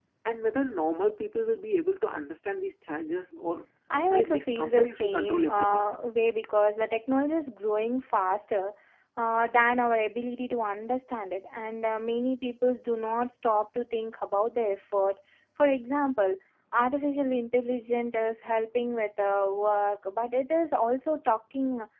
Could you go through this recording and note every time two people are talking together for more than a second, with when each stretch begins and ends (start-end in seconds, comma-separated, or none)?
4.1-5.9